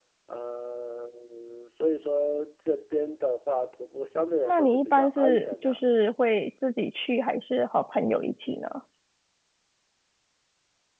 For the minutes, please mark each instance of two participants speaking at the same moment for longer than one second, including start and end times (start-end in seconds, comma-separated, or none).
4.5-5.8